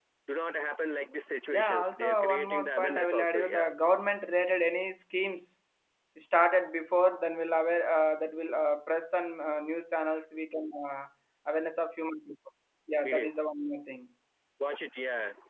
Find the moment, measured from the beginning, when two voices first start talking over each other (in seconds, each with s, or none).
1.5 s